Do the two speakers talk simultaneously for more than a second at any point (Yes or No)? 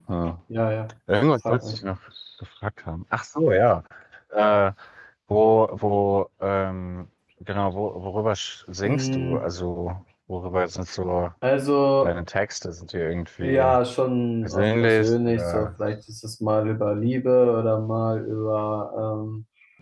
Yes